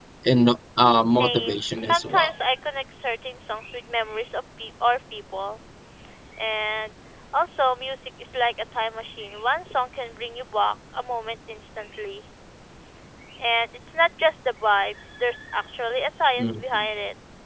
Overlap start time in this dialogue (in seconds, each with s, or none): 1.1 s